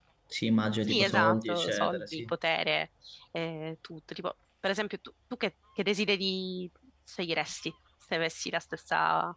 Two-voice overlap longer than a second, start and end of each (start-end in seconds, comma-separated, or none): 0.8-2.3